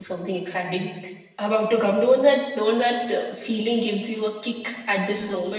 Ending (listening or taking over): taking over